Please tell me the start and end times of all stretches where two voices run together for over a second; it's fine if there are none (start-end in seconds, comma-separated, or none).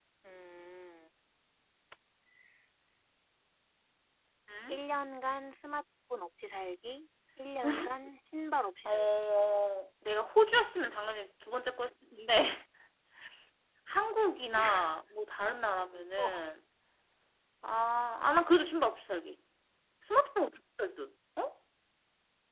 none